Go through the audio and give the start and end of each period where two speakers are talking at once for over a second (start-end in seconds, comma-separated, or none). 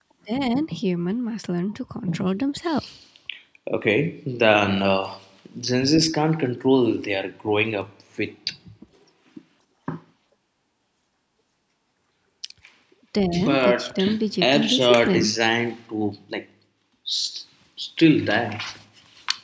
13.4-15.3